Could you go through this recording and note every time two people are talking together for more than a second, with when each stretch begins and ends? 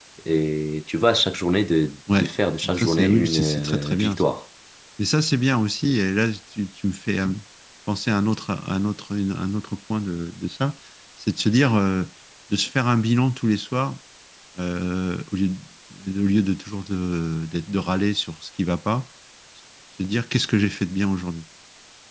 2.7-4.3

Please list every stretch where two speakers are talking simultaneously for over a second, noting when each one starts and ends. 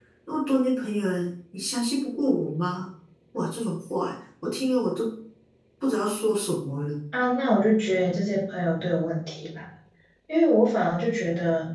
none

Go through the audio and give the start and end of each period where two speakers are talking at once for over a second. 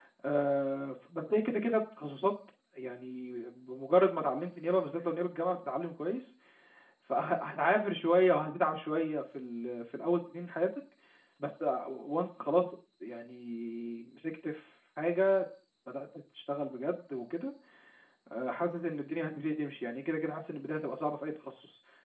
none

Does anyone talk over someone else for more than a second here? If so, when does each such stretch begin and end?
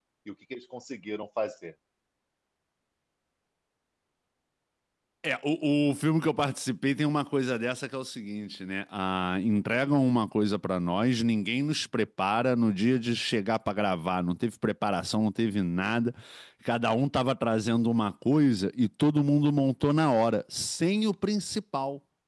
none

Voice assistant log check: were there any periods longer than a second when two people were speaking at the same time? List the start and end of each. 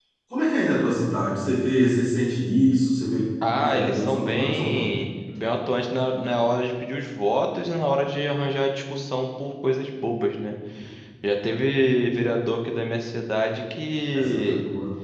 3.6-4.8

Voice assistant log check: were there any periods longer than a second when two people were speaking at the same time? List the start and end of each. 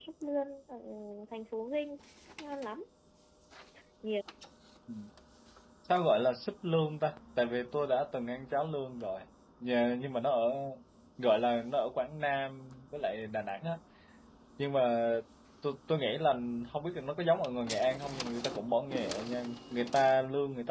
none

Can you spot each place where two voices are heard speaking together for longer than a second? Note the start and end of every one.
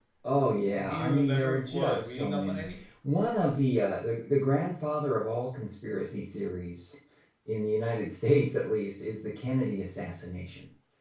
0.7-2.6

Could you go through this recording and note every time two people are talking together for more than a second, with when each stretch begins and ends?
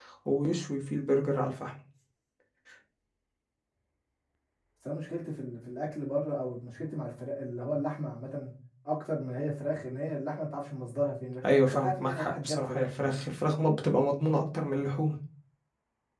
11.4-13.2

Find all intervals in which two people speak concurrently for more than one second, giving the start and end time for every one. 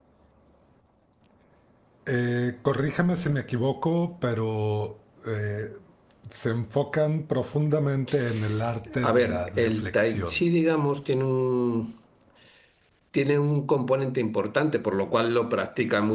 9.1-10.4

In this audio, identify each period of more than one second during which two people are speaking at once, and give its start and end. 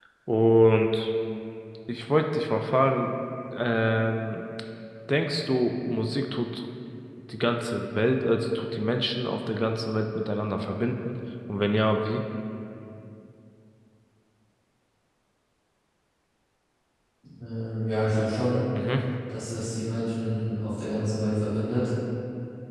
none

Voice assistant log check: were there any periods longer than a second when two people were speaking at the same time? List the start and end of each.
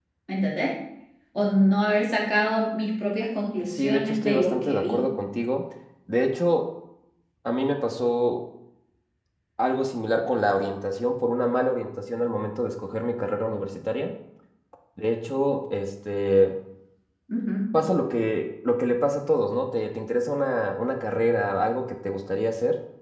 3.6-5.0

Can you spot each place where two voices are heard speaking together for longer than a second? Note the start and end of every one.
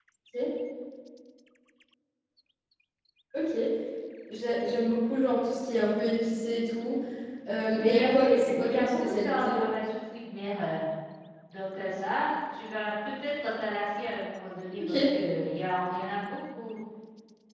7.8-9.6

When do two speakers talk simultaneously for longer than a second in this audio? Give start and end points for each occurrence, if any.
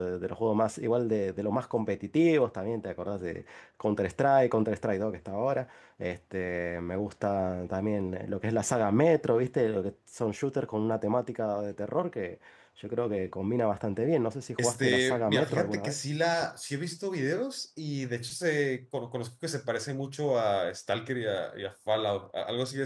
14.6-16.0

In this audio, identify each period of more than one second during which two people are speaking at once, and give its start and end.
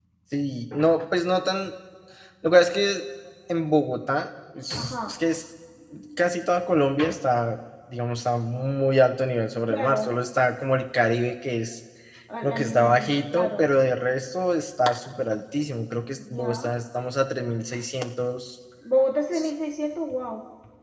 12.4-13.7

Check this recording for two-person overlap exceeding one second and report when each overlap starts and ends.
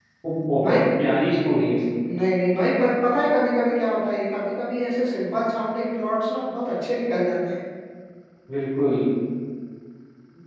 none

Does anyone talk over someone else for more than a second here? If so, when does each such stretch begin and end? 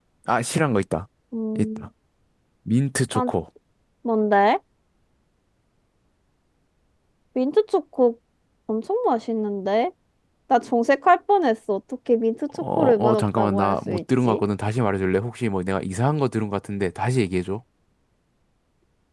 12.8-14.4

